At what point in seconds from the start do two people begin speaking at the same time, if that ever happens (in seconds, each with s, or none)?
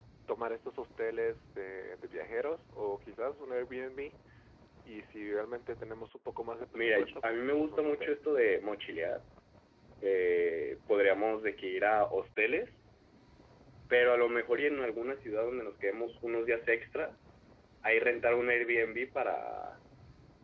6.7 s